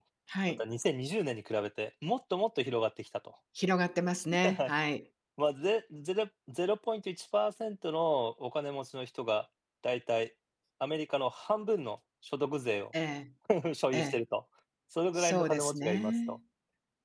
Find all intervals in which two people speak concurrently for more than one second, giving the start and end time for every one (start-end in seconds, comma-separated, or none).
15.2-16.4